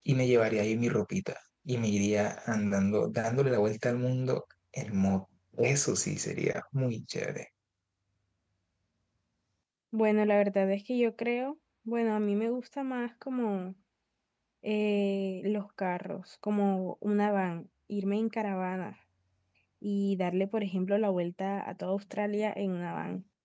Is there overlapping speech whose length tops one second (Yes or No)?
No